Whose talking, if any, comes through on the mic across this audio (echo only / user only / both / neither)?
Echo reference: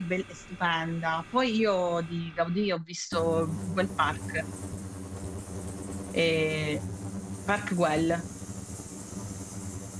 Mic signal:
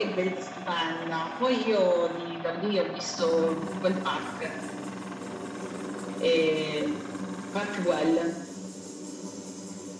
echo only